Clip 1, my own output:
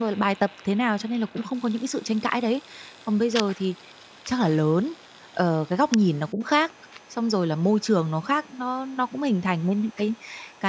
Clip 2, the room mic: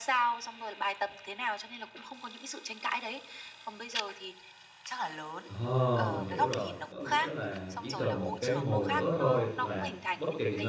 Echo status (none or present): present